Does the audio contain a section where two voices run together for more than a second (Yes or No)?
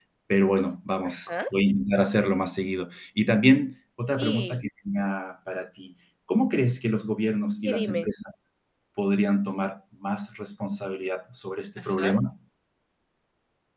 No